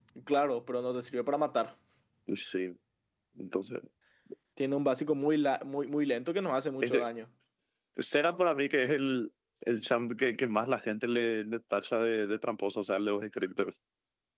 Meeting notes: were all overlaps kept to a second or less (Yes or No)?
Yes